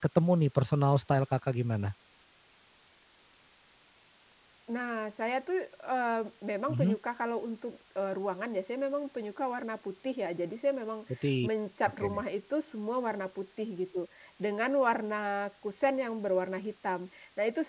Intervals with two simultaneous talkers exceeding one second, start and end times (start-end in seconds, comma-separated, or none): none